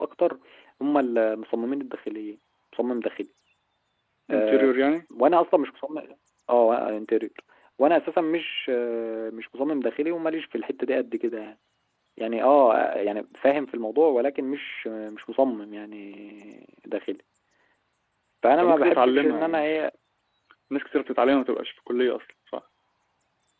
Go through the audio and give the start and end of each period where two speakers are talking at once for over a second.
18.6-19.8

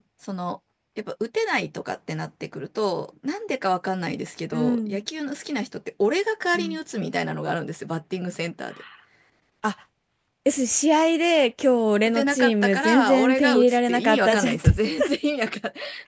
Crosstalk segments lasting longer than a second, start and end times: 12.1-14.7

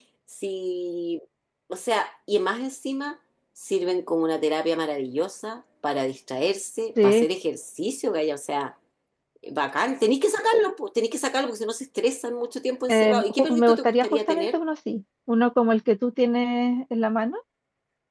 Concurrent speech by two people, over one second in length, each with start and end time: 12.9-14.5

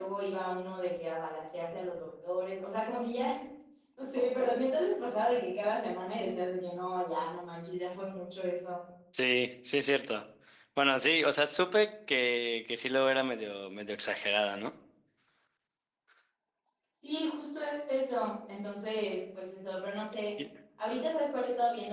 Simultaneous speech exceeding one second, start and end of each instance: none

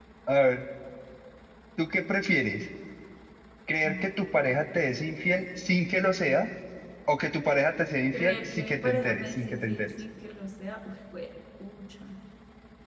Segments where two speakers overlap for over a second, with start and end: 8.1-9.9

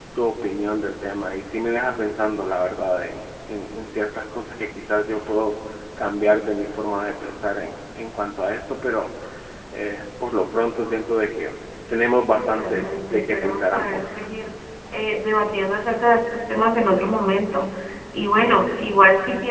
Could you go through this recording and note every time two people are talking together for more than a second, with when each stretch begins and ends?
12.4-14.1

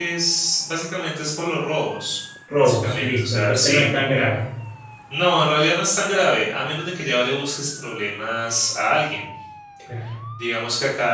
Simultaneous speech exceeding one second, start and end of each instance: 2.6-3.9

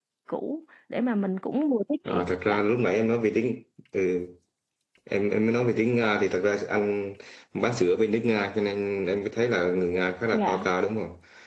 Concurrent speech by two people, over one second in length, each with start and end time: none

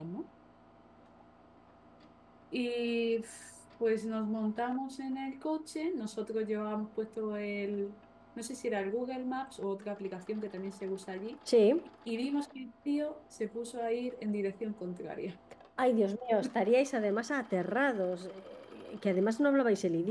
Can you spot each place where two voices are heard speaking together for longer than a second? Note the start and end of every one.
none

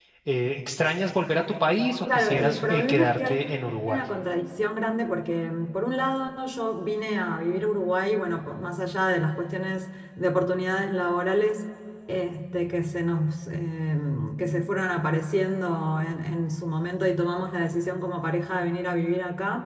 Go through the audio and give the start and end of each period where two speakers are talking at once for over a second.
2.1-3.4

